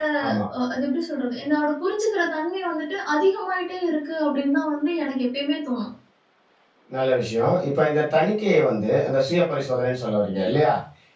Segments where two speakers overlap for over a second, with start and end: none

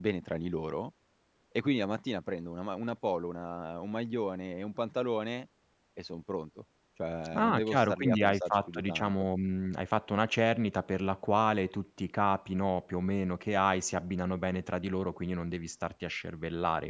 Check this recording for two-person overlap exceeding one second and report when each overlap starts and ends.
7.3-9.1

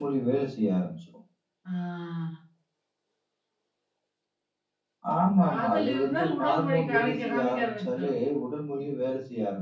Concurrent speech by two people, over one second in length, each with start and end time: 5.4-8.1

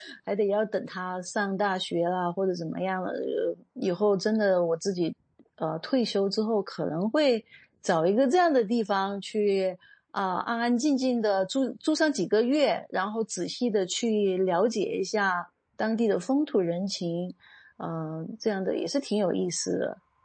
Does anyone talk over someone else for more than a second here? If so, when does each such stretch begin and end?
none

